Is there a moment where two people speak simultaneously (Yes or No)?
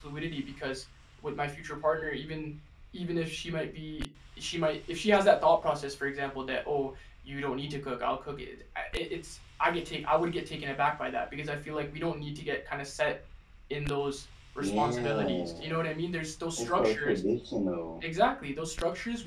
Yes